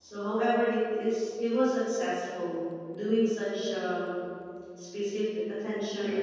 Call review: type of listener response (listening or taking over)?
listening